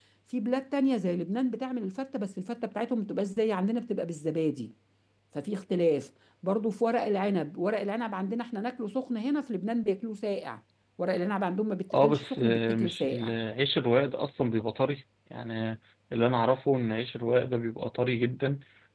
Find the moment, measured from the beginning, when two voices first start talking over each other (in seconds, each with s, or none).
11.9 s